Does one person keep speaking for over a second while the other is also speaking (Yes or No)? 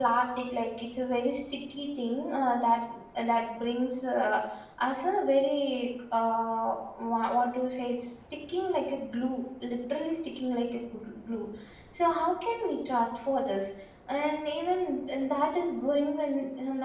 No